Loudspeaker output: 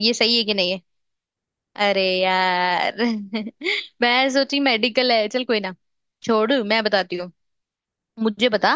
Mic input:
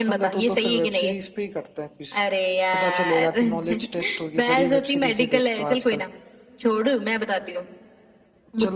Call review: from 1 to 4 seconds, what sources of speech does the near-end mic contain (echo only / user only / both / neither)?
both